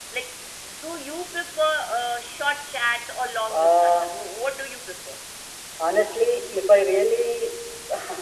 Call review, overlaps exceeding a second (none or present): none